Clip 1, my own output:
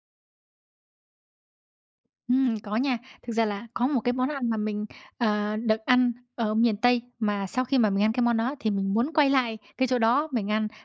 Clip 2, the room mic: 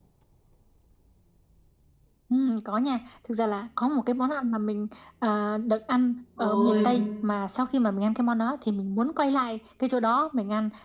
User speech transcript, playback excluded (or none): Ôi.